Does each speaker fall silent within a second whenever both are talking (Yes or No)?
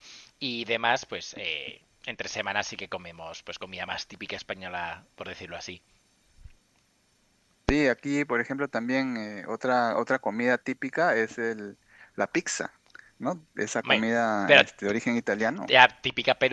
Yes